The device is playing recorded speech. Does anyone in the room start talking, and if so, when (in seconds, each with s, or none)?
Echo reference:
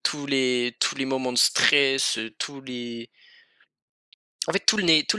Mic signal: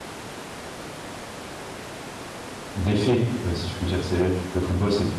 2.7 s